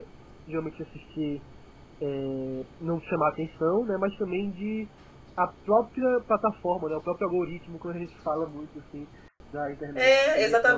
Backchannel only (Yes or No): No